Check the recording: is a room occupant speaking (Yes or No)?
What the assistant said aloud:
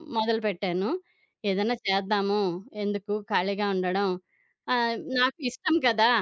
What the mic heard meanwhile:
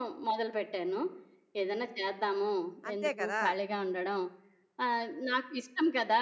Yes